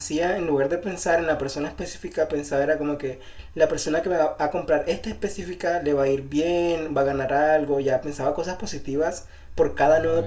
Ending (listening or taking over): listening